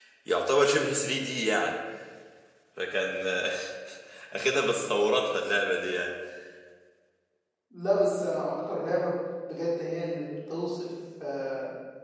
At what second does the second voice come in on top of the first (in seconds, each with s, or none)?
none